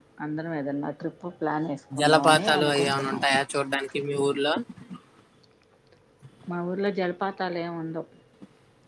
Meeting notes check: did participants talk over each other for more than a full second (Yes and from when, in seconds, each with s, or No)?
Yes, from 1.9 s